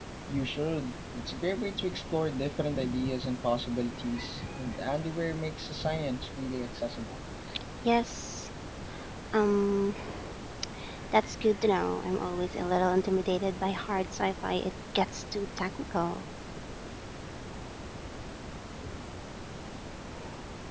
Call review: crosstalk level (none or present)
none